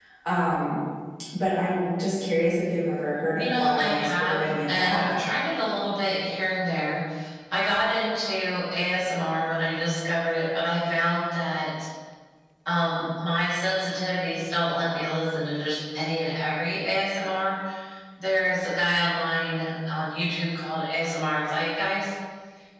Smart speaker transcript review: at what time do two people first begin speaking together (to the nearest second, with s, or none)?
3 s